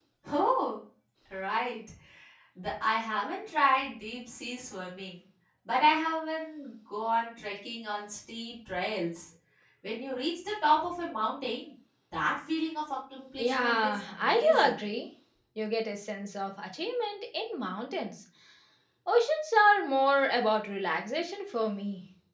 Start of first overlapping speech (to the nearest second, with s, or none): 13 s